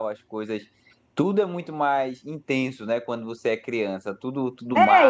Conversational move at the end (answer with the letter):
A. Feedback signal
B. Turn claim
B